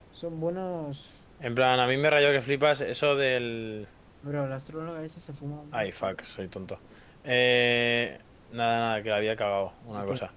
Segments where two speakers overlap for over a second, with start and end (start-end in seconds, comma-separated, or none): none